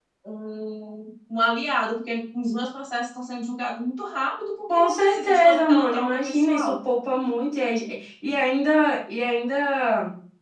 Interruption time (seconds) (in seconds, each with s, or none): 4.7 s